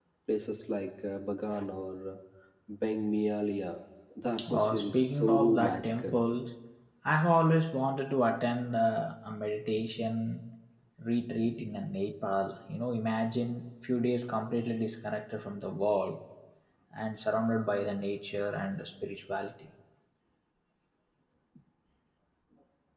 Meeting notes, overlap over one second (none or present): present